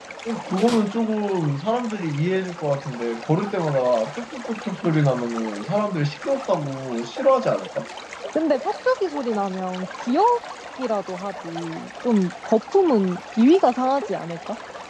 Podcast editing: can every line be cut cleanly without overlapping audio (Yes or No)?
Yes